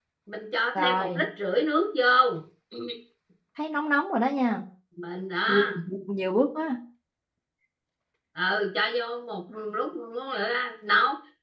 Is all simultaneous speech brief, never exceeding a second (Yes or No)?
Yes